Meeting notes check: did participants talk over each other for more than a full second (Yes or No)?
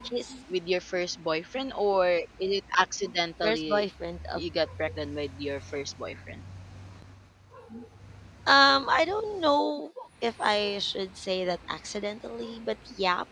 No